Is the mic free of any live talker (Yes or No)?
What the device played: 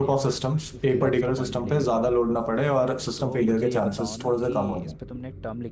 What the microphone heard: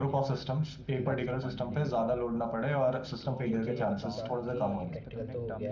No